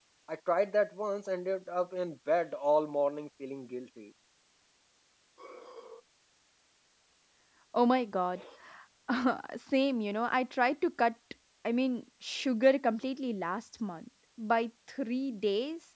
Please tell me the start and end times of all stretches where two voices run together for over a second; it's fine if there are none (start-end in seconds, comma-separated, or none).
none